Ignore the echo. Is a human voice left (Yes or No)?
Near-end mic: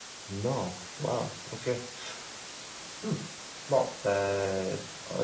No